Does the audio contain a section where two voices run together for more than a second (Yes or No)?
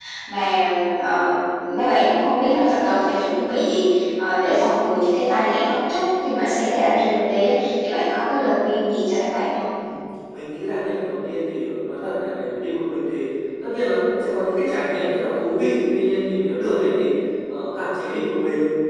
No